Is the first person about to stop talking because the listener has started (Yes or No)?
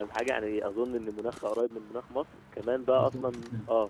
No